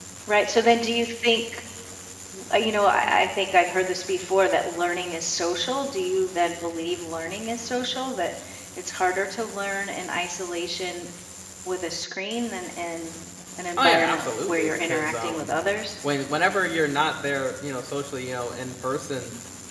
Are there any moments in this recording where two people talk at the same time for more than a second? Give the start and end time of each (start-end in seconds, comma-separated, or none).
13.8-15.5